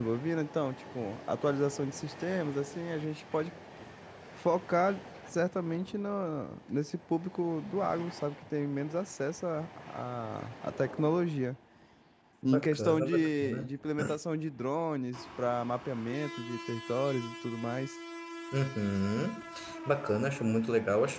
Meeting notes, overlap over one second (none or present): present